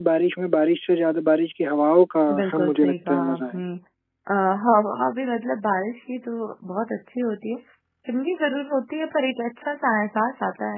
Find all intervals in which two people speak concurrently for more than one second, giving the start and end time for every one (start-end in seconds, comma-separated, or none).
2.3-3.6